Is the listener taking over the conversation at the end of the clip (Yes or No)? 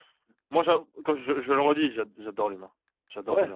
Yes